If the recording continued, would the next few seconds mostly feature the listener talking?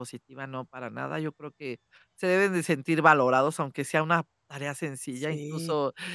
No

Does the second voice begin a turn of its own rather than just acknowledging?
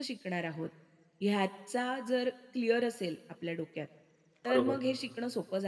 No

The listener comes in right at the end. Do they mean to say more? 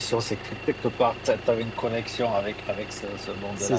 Yes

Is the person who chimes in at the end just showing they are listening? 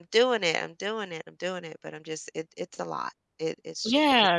No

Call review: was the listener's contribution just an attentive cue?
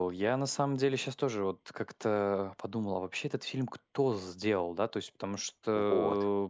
Yes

